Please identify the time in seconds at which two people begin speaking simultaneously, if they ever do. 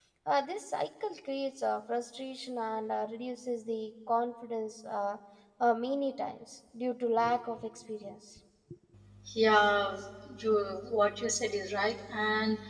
none

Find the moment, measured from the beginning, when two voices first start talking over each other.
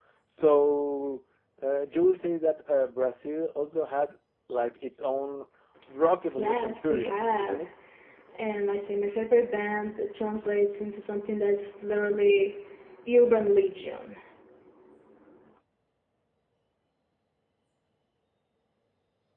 6.4 s

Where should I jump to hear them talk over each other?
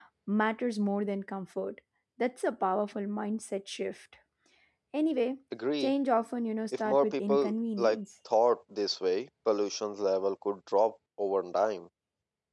6.8 s

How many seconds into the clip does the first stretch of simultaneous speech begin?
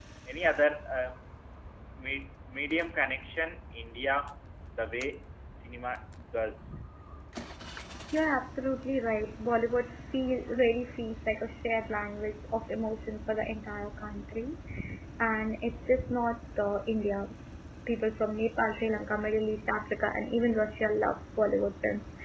none

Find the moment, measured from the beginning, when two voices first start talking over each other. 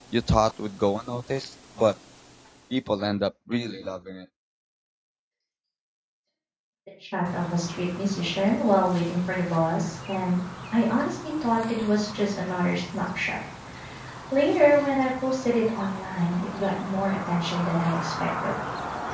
none

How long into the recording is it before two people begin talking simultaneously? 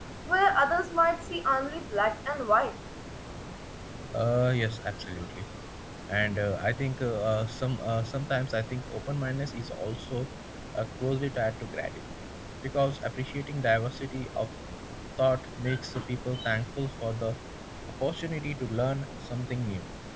none

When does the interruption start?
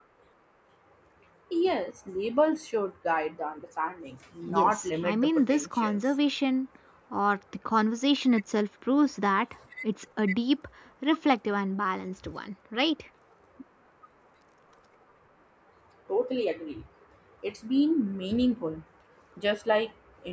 4.5 s

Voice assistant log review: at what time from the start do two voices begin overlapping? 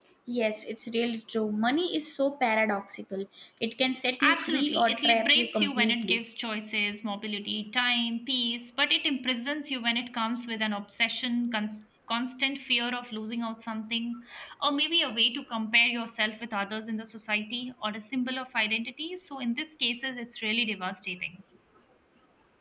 4.2 s

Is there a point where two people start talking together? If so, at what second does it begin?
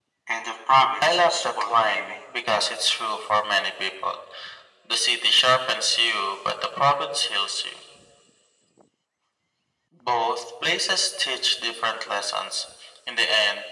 1.0 s

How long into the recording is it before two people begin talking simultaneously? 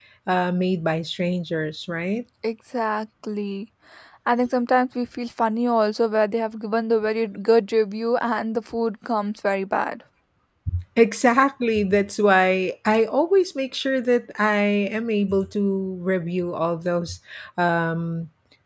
none

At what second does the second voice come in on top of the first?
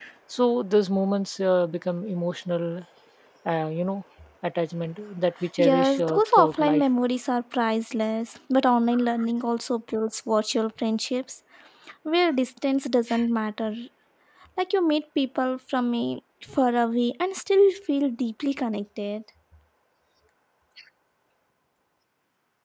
5.6 s

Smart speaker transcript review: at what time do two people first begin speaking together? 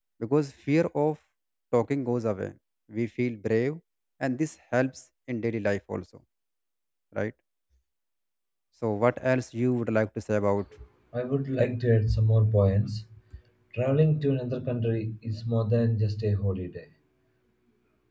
none

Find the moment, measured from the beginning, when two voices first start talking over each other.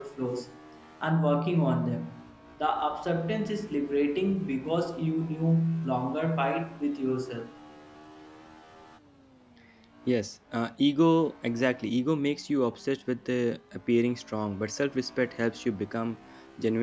none

